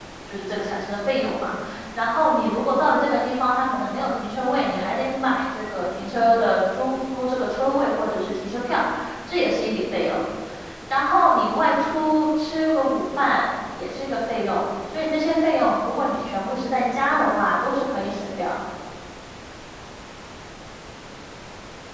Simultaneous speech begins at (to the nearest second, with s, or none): none